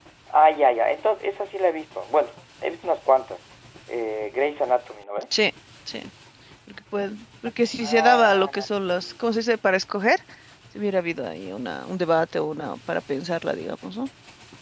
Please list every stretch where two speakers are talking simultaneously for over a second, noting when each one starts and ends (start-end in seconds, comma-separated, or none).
7.8-9.1